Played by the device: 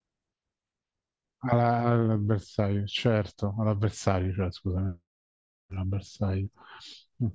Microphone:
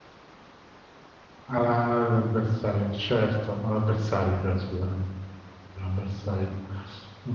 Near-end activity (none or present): none